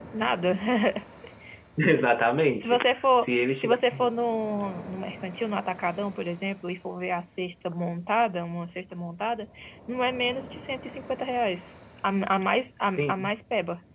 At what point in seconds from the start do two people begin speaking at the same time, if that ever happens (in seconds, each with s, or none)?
2.6 s